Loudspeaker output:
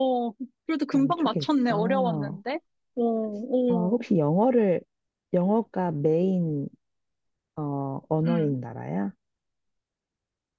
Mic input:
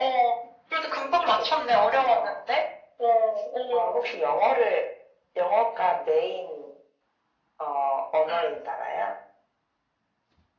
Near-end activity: none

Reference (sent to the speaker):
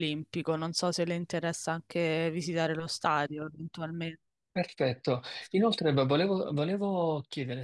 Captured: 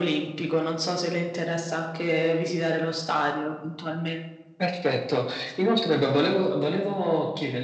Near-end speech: none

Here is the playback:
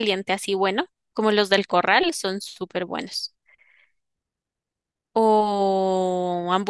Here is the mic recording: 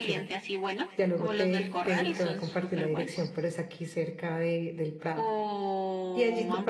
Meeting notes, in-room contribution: present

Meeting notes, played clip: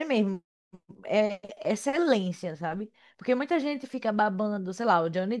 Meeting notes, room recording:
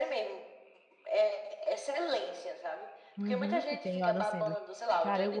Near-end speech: present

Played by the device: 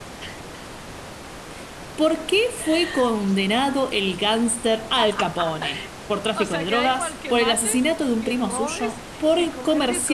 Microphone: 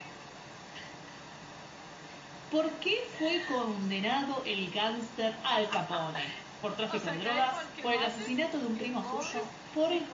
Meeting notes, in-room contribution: none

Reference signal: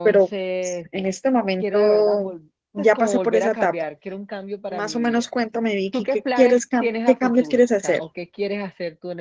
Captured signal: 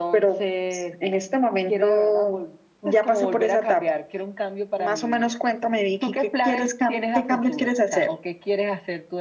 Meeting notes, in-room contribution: none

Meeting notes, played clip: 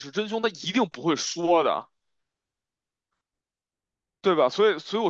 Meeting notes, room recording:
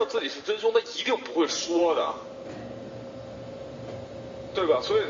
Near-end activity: none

